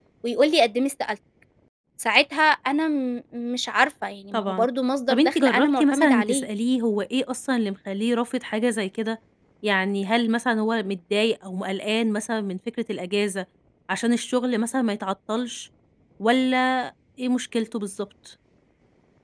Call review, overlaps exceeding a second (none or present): present